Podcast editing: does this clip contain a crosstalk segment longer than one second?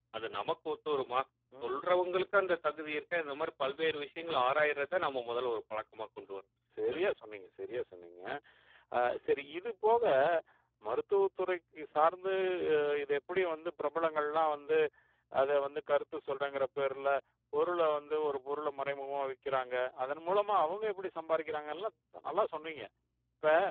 No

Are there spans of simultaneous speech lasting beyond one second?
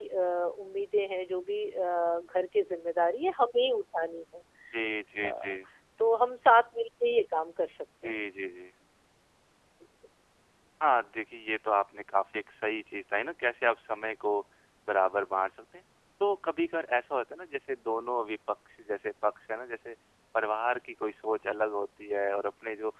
No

